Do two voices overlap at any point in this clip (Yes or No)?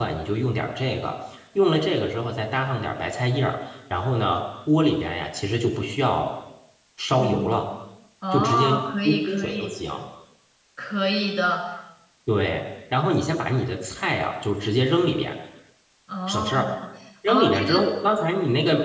Yes